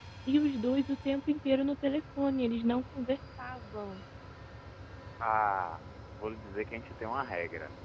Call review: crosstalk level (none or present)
none